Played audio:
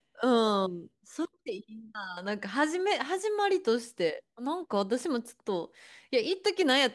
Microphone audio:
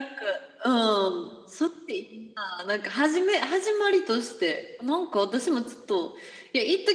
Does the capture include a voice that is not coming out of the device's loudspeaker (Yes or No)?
No